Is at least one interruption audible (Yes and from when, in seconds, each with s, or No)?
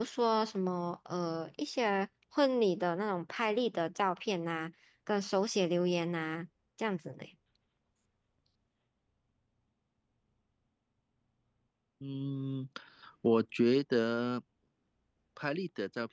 No